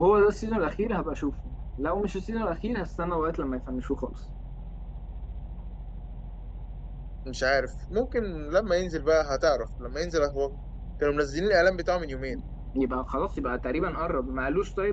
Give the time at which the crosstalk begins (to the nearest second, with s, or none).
none